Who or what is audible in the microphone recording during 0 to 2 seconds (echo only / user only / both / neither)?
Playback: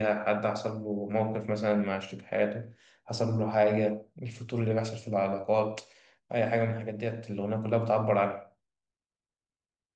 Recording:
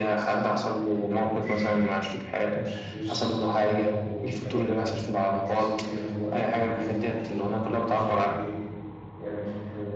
both